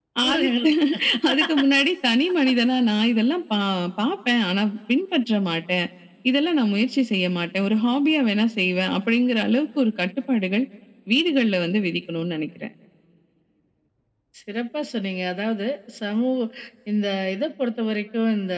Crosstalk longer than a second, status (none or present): none